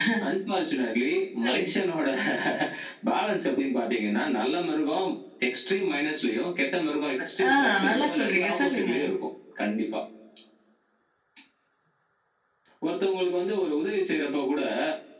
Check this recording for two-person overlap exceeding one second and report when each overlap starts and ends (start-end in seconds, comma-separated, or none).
7.5-8.9